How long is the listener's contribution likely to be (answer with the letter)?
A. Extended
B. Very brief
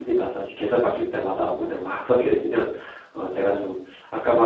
B